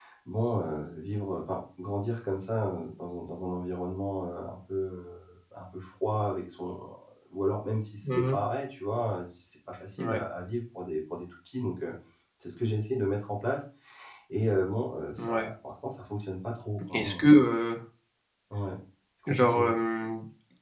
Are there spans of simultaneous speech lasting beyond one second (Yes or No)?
No